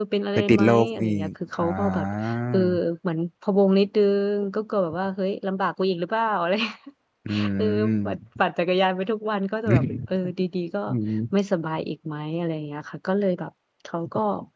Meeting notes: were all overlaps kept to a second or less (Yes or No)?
No